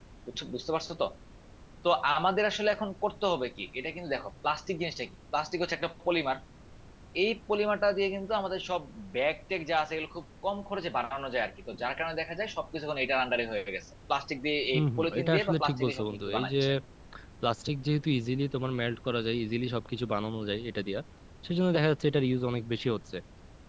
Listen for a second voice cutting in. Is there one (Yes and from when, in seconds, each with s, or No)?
Yes, from 14.7 s